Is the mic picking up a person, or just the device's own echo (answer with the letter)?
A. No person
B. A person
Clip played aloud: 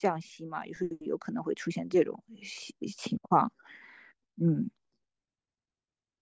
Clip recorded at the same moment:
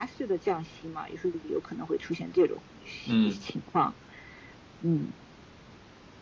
B